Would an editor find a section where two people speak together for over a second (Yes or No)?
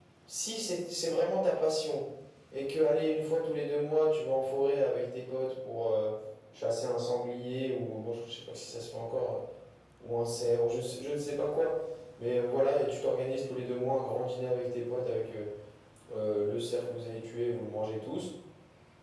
No